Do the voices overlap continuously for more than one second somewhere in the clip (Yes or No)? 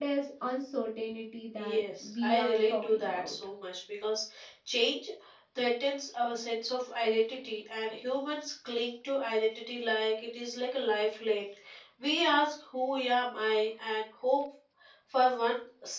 Yes